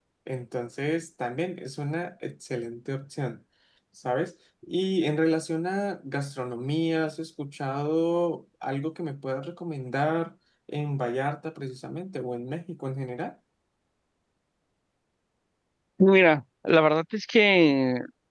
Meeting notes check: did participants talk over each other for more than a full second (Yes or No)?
No